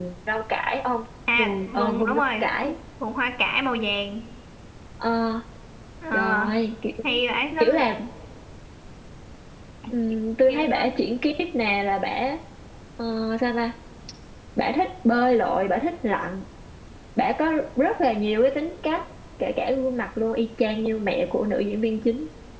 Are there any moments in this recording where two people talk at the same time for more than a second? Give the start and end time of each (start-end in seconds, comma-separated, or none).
1.4-2.8